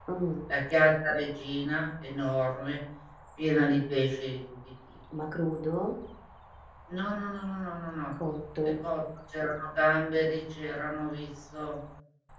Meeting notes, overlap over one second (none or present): none